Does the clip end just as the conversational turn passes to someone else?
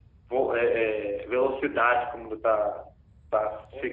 Yes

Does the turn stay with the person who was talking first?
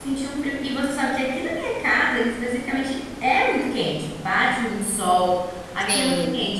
Yes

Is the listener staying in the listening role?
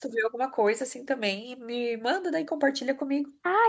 No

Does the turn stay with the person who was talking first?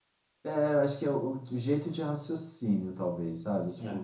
Yes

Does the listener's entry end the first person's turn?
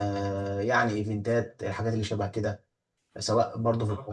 Yes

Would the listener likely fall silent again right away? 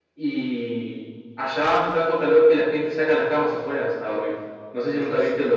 Yes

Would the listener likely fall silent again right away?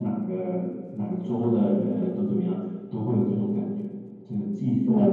No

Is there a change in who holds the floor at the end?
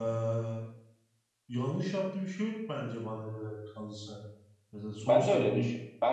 Yes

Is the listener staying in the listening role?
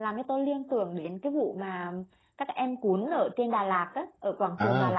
No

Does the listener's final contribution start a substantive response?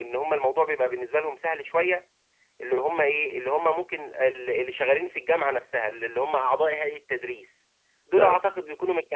No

